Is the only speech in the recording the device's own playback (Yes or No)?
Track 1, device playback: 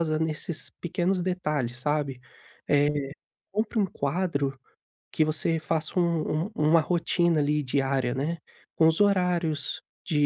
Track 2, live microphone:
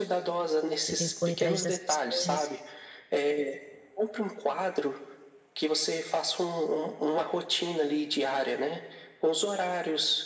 No